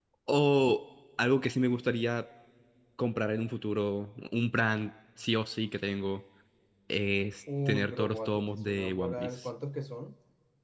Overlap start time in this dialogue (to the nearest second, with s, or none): 8 s